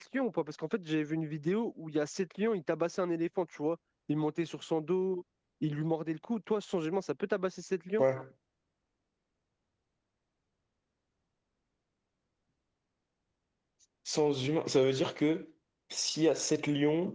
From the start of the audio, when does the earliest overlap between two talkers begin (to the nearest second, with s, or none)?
none